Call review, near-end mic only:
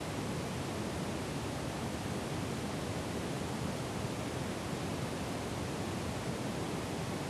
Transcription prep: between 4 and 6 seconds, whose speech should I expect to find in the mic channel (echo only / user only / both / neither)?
neither